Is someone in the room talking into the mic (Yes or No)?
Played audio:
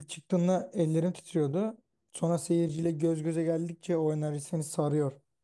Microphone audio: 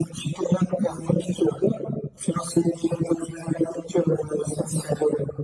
No